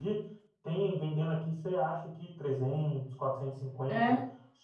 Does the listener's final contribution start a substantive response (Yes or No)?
No